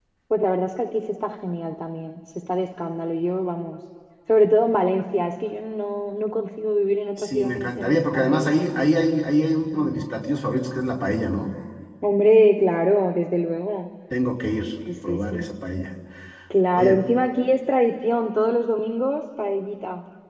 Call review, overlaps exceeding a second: present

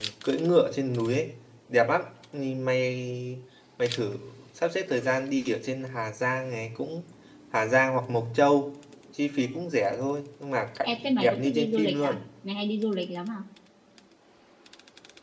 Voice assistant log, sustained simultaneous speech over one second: present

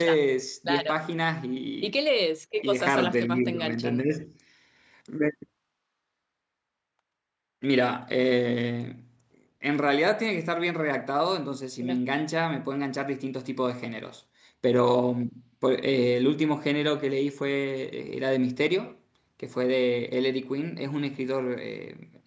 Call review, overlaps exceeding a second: present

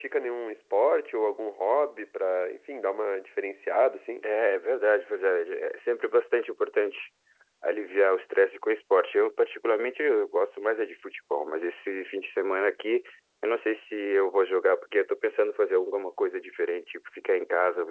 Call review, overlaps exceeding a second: none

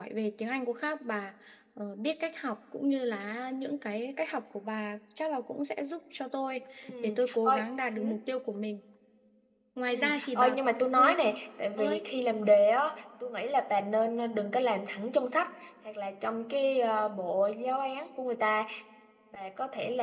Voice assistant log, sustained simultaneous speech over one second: present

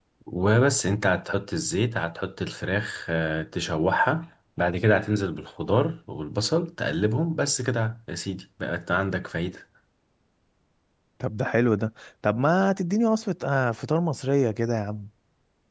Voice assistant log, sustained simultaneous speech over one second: none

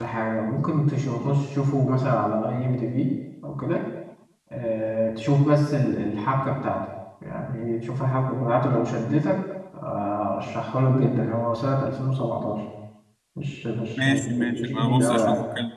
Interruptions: present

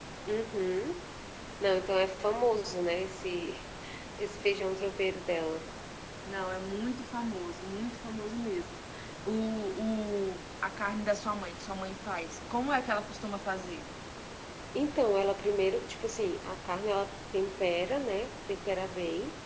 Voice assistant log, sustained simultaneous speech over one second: none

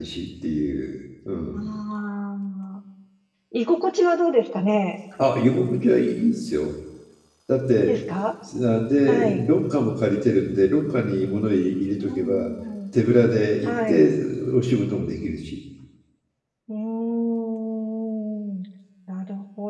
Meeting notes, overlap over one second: none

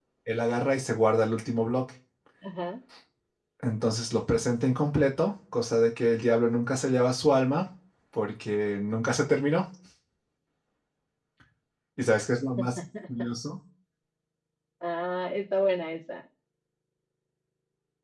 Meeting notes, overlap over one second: none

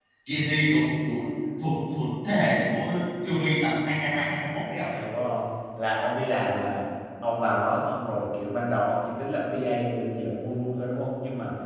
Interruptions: none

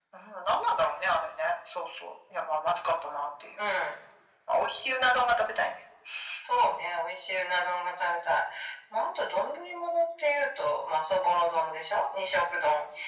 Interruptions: none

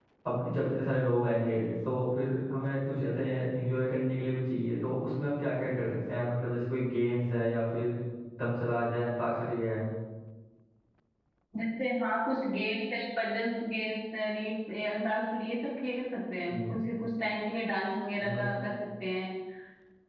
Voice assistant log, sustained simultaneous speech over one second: none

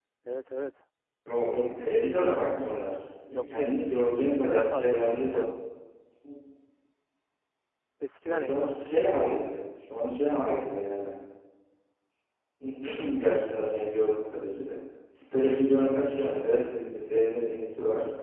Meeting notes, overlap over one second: present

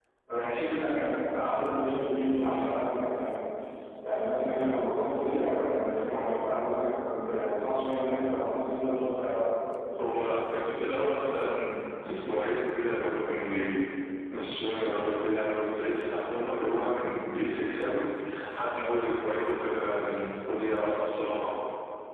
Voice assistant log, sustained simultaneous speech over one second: none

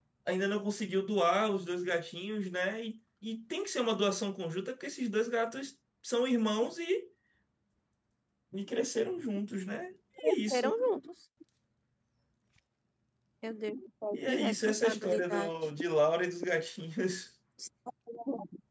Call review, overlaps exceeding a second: present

